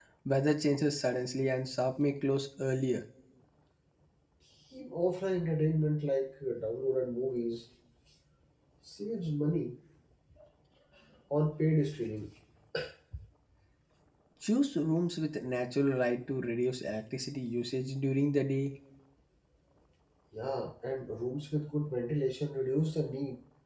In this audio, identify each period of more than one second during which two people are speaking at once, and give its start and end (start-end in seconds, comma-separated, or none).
none